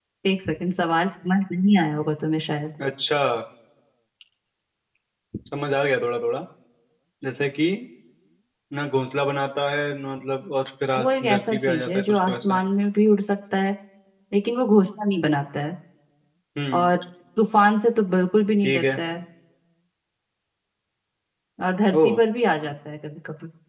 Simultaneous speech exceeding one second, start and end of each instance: 11.0-12.6

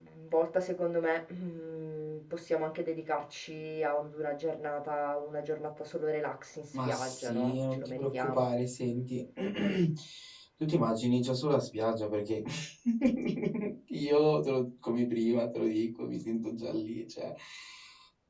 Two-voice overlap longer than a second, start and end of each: 6.8-8.5

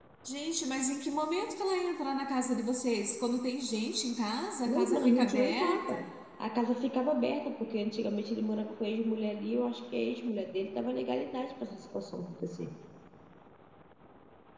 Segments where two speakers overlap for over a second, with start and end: 4.7-6.0

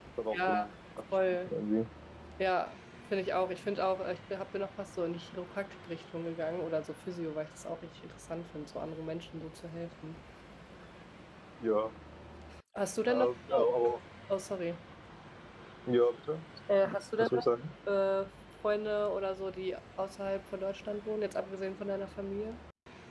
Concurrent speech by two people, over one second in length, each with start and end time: none

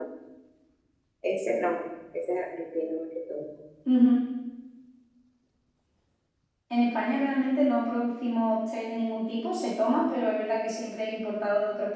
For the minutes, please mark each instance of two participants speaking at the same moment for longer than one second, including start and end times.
none

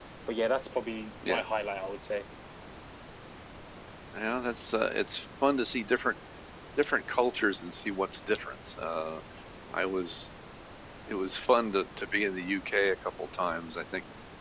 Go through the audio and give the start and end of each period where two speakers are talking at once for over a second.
none

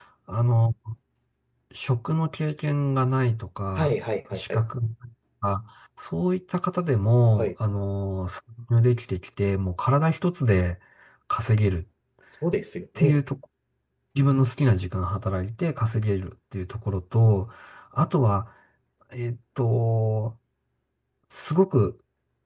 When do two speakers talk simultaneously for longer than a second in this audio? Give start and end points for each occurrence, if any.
none

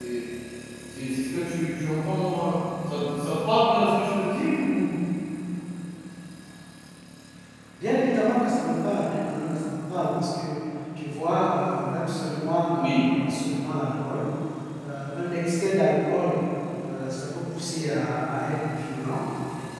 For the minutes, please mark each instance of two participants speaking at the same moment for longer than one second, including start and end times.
none

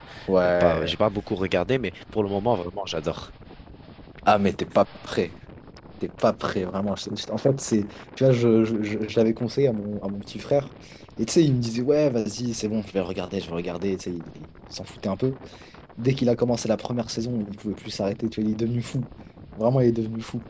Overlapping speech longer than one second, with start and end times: none

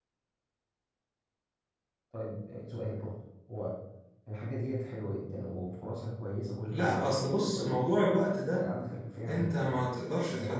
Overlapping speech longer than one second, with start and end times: 6.7-8.0

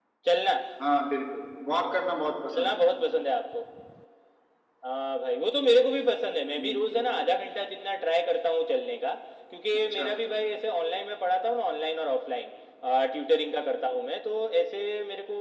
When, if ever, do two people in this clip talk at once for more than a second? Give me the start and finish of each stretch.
none

